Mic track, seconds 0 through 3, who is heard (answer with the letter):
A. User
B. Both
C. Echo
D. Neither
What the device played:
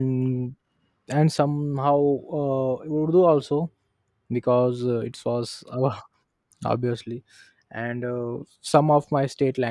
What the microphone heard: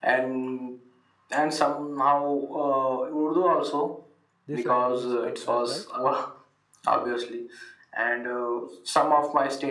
C